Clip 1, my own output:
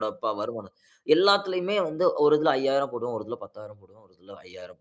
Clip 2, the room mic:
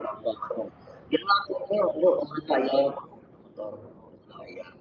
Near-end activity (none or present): none